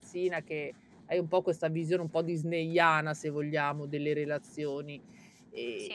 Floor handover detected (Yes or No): No